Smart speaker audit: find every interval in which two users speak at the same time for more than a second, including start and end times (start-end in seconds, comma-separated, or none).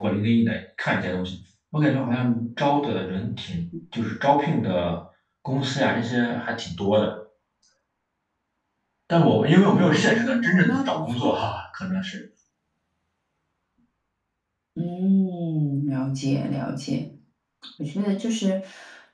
9.9-11.1